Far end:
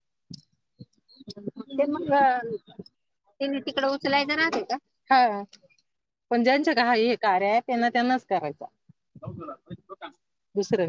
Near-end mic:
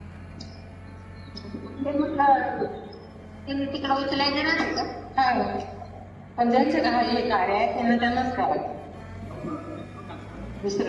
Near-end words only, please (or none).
none